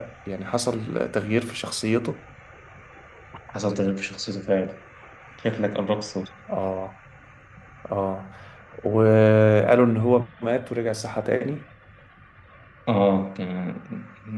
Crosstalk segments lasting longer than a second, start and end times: none

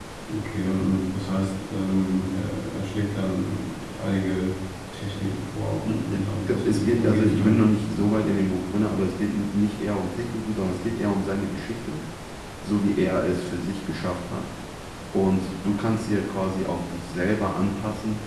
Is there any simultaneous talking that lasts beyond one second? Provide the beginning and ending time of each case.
6.1-7.6

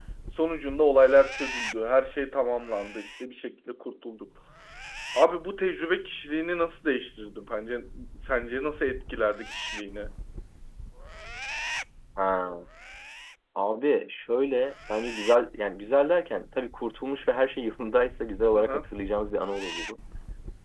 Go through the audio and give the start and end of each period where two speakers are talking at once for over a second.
none

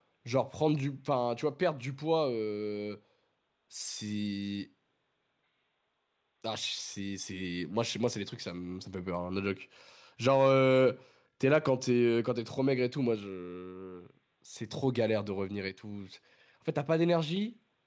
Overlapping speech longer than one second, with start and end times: none

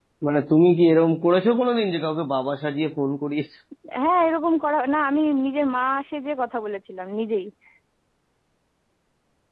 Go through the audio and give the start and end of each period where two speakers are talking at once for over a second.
none

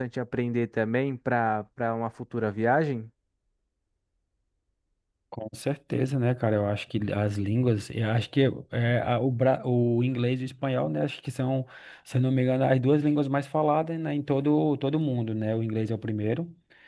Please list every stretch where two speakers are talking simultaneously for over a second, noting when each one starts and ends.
none

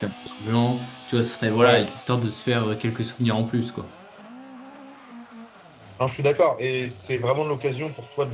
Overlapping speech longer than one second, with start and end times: none

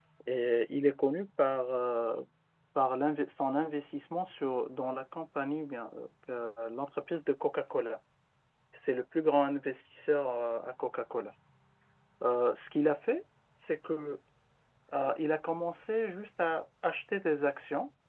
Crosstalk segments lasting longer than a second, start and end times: none

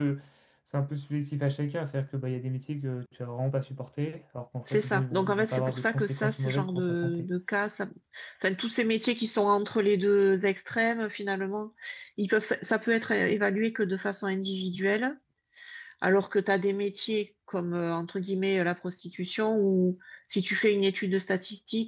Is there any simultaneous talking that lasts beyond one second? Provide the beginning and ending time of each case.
4.7-7.3

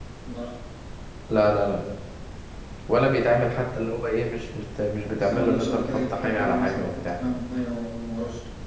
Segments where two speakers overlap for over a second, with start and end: 5.2-7.2

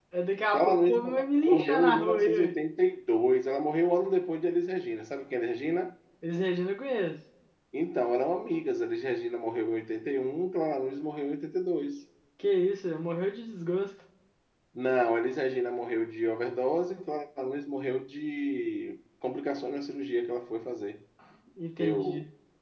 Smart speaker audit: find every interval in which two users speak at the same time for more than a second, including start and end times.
0.5-2.5

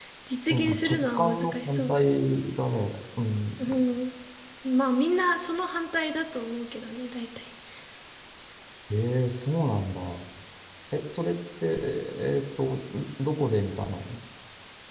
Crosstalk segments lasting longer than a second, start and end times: 0.5-1.9

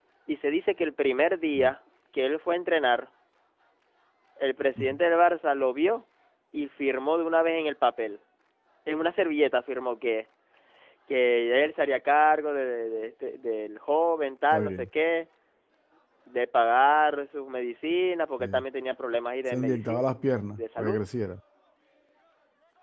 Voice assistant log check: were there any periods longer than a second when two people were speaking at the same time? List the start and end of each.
19.5-21.0

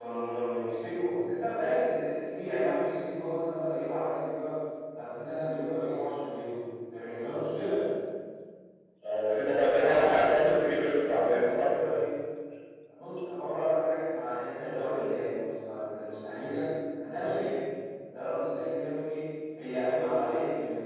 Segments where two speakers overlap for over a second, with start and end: 9.8-12.1

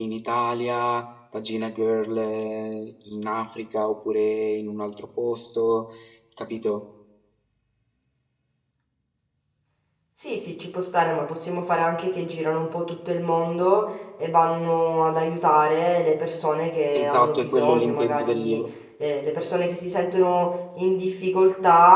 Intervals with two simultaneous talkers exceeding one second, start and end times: 16.9-18.6

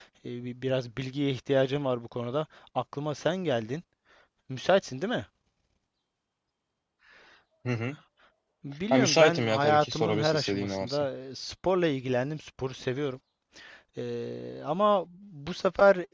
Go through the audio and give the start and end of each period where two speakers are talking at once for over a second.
8.9-11.1

